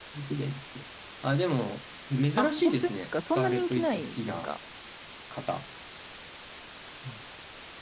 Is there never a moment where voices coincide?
No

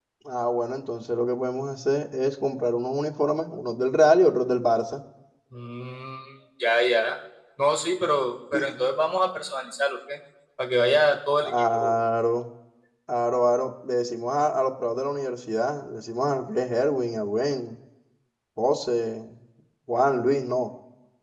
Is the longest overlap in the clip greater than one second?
No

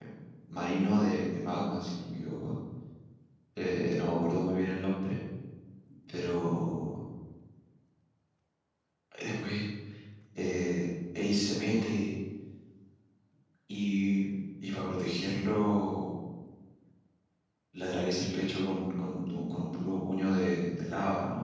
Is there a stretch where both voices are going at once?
No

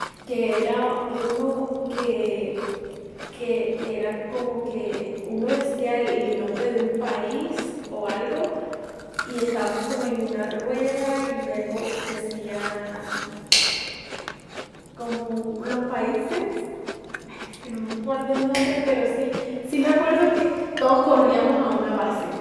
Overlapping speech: No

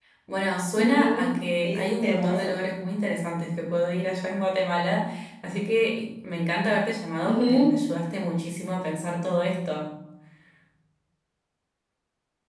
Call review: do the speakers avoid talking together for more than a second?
No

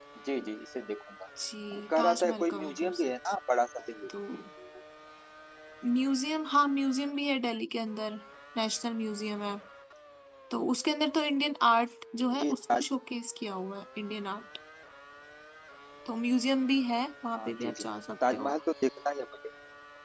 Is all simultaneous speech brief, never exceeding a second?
No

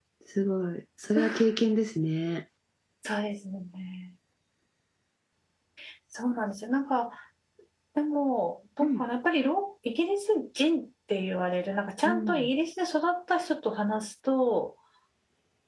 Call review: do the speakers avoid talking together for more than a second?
Yes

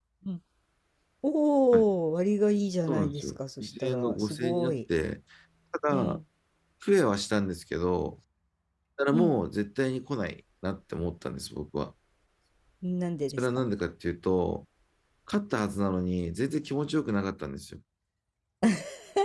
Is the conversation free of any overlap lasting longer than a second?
No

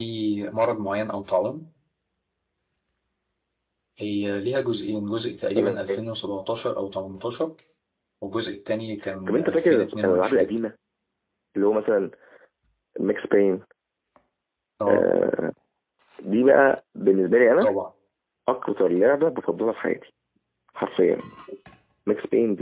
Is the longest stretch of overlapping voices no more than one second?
No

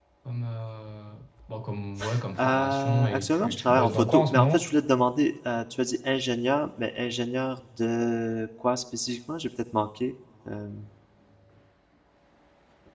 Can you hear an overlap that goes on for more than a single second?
Yes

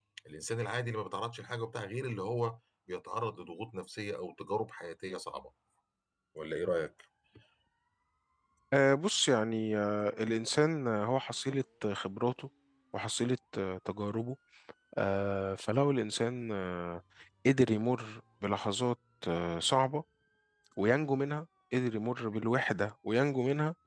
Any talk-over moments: No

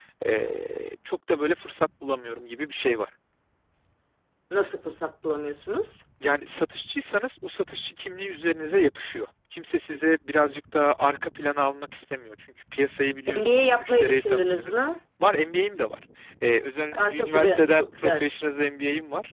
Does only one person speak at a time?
No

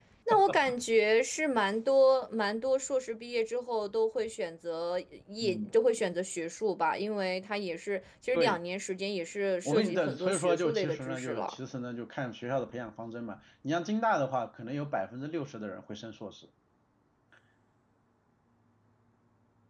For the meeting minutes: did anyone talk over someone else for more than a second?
Yes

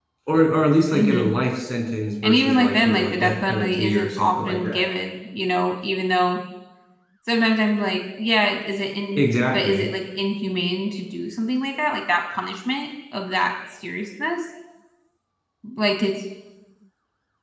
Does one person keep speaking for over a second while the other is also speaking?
Yes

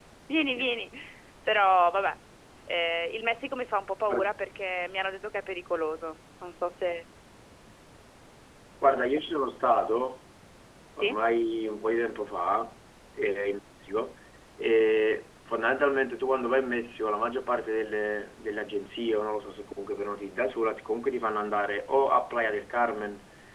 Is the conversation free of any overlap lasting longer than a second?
Yes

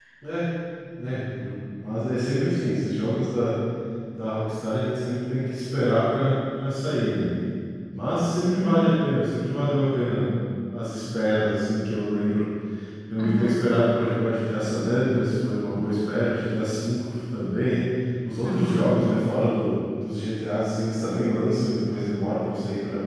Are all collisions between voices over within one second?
Yes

